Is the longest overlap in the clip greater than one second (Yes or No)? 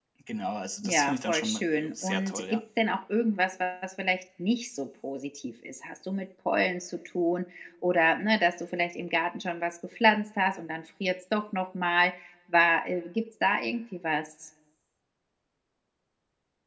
Yes